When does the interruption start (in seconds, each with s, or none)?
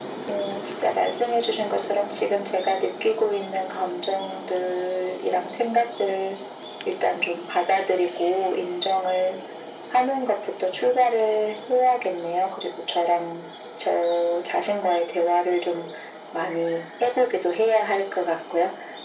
none